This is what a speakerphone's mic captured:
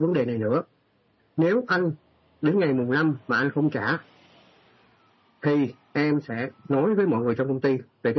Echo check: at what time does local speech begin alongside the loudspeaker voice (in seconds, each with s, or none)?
none